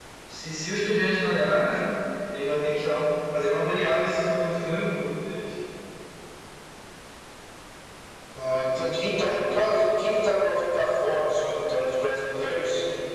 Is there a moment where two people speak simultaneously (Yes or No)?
No